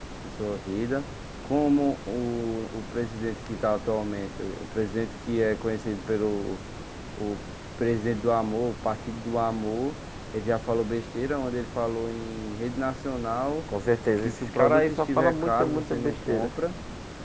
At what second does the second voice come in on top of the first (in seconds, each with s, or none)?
14.2 s